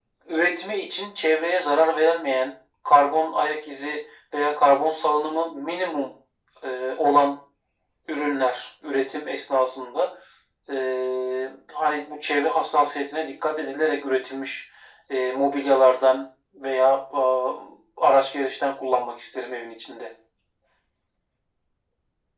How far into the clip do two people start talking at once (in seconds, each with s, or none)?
none